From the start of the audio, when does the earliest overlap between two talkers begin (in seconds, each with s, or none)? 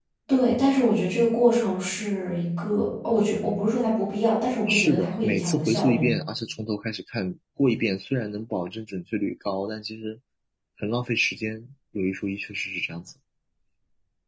4.7 s